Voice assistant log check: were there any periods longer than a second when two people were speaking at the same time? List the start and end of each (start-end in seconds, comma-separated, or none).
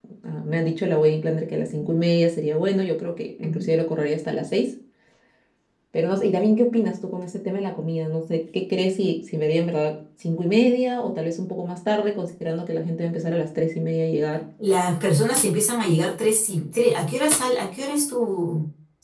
none